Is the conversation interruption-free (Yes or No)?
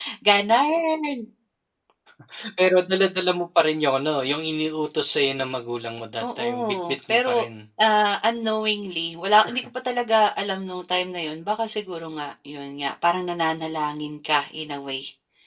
No